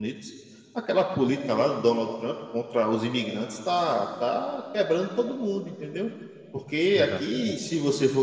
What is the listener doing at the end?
listening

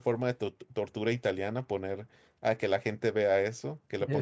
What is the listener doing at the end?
listening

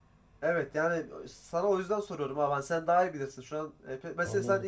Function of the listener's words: listening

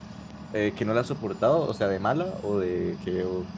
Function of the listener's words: taking over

